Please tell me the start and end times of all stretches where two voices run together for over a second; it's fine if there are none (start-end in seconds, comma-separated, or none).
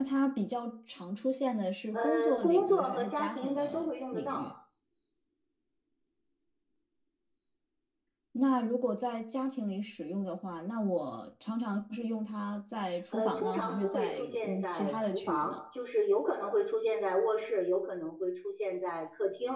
1.9-4.5, 13.1-15.6